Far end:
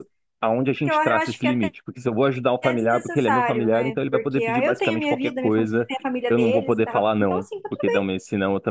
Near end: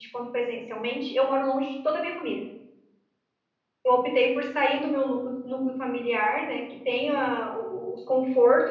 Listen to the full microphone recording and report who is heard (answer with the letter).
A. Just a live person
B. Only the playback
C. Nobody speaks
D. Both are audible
A